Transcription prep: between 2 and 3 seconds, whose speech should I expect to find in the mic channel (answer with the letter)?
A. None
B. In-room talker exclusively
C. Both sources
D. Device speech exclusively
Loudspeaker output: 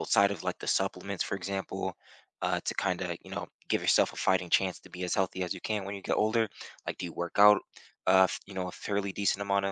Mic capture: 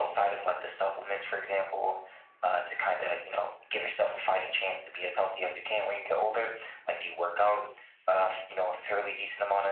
D